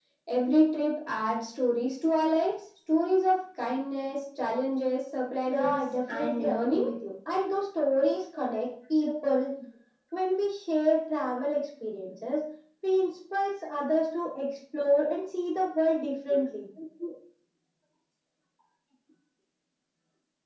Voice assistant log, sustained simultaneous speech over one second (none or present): present